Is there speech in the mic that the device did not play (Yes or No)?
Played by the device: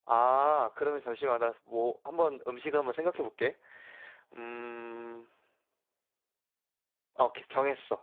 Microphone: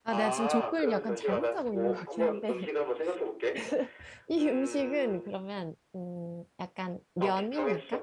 Yes